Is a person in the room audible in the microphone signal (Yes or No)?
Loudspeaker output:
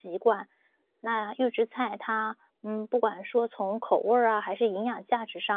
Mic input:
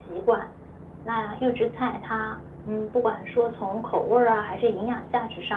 No